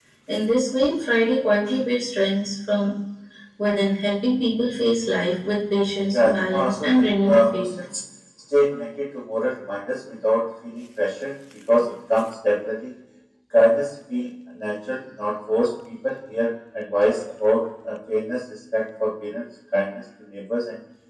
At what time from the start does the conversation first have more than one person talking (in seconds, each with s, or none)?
6.1 s